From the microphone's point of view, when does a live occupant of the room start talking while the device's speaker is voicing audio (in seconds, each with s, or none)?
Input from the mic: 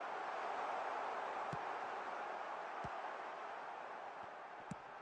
none